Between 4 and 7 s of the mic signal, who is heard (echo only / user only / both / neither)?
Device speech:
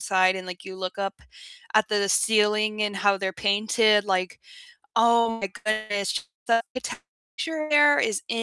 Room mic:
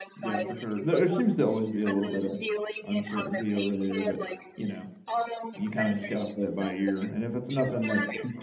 both